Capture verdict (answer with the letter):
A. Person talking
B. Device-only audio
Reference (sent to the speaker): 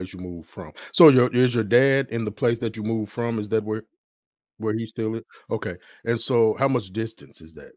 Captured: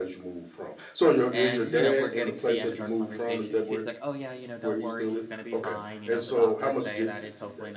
A